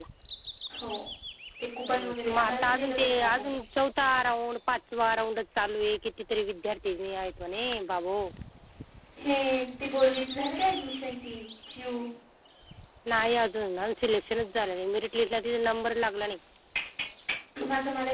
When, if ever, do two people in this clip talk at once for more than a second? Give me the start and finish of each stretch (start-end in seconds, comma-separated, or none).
1.9-3.5